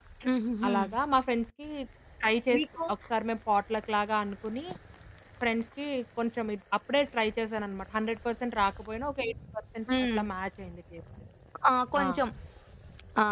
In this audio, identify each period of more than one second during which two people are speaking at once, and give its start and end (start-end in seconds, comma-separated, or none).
none